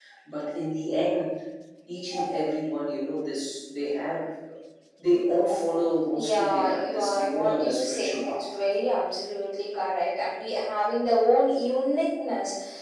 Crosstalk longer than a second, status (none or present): present